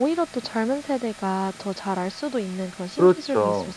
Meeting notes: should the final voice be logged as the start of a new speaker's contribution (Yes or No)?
Yes